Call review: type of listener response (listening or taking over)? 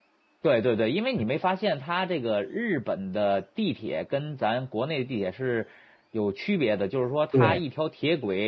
listening